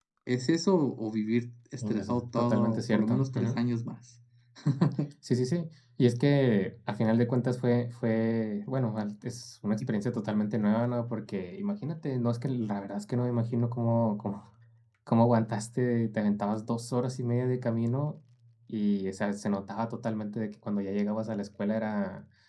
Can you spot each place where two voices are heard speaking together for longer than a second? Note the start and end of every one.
1.8-3.6

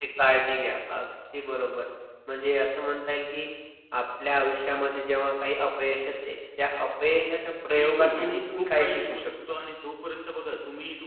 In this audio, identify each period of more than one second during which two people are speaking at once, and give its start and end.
7.7-9.3

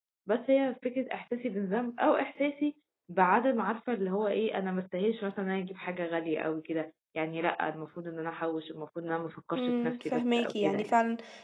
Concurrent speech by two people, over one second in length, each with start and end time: 9.6-11.0

